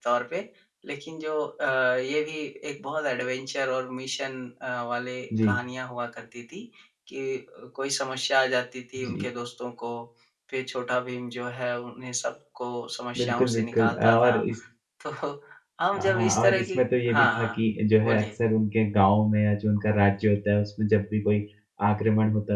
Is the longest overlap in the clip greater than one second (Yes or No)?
Yes